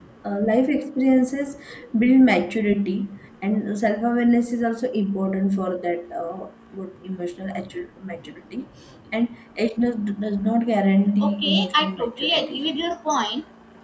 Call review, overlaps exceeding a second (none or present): present